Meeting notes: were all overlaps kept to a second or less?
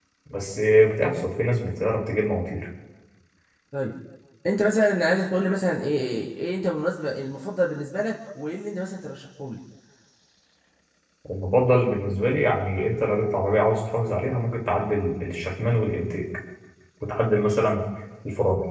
Yes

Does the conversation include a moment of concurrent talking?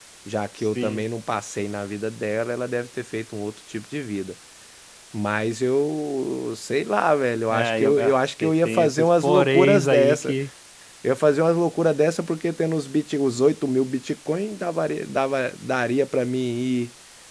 Yes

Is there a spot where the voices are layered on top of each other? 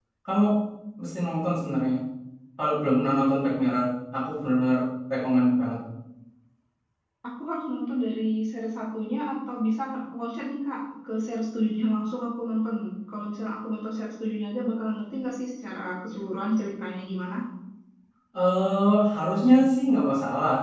No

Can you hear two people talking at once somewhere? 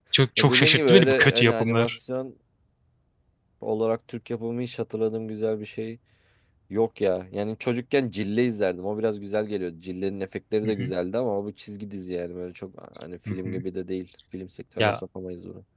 Yes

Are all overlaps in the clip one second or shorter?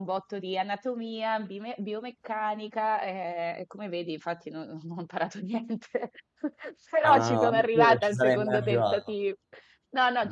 No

